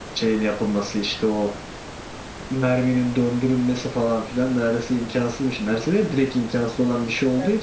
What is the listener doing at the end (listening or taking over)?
listening